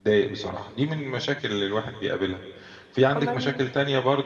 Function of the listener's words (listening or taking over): listening